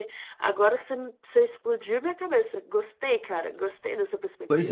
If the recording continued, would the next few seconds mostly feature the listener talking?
Yes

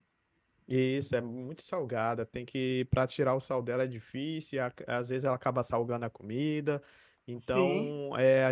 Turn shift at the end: No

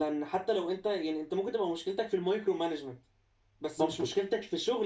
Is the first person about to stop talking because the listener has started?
No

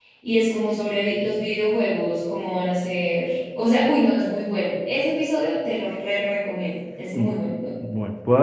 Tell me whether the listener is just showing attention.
No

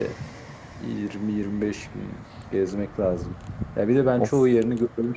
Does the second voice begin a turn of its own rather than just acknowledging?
No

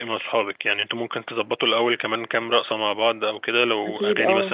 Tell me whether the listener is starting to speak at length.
No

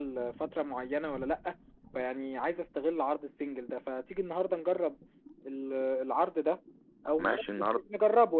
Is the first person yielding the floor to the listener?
No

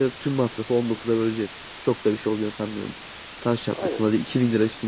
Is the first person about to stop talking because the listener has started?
No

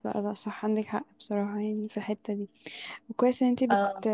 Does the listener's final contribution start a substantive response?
No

